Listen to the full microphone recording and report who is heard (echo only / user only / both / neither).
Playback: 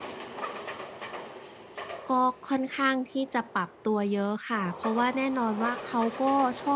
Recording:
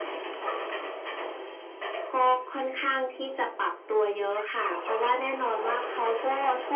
echo only